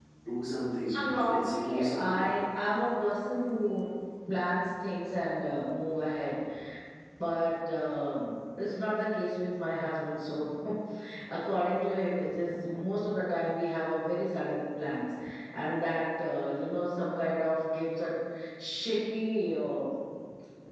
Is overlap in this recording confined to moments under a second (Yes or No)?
No